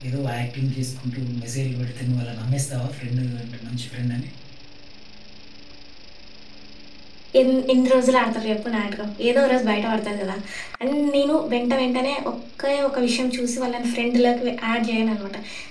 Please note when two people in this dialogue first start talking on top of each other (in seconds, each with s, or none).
none